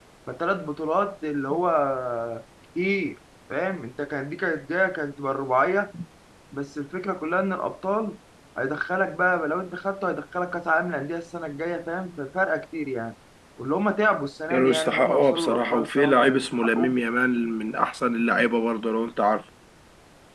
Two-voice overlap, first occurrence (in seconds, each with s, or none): 14.5 s